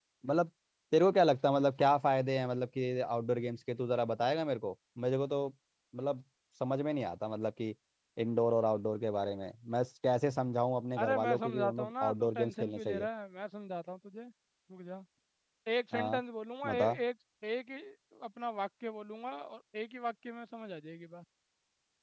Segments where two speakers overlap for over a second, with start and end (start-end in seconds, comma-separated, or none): 11.0-13.1